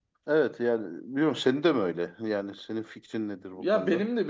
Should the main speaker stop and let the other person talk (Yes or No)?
Yes